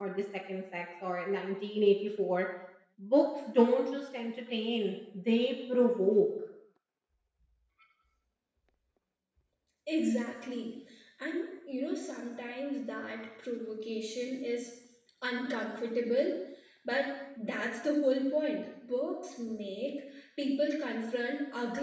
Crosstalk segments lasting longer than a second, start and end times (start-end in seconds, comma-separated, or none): none